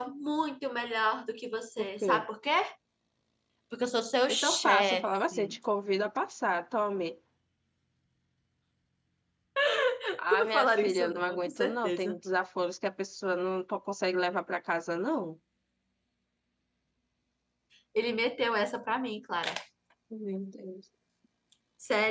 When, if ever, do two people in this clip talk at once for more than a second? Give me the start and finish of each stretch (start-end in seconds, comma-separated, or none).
4.3-5.6, 10.3-12.2